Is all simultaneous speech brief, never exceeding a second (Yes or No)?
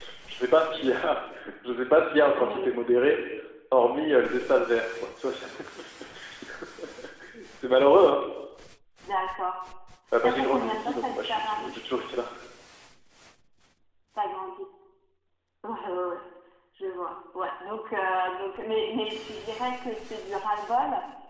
No